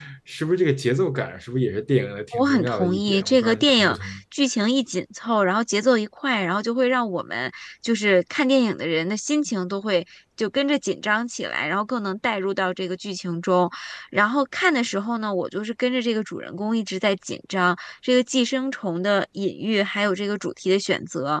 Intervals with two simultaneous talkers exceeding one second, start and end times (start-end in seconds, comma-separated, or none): 2.3-4.2